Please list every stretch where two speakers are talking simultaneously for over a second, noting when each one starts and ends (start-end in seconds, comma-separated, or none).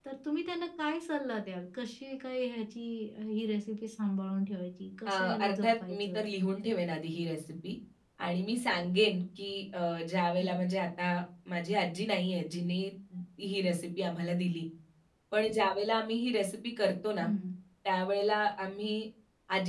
5.0-6.2